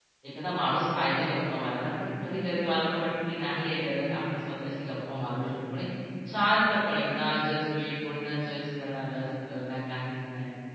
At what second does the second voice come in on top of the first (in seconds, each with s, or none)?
none